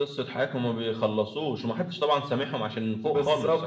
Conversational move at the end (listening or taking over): taking over